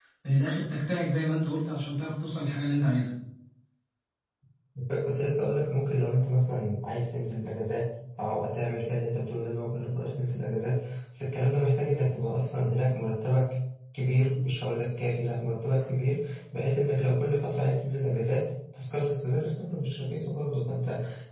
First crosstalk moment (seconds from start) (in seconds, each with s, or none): none